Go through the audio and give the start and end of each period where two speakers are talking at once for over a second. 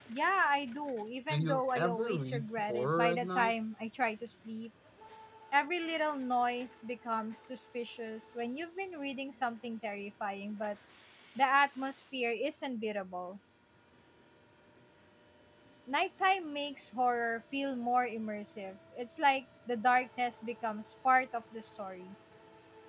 1.3-3.5

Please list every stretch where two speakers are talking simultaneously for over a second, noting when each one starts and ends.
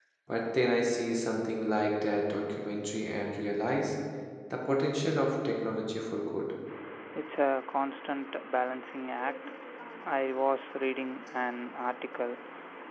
none

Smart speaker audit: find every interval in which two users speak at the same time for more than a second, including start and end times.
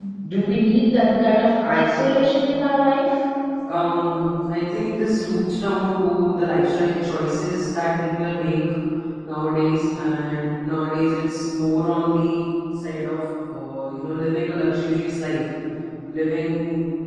none

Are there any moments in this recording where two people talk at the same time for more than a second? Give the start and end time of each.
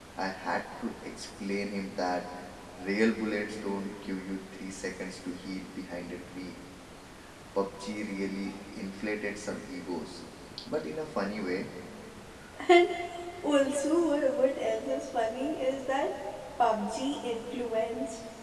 none

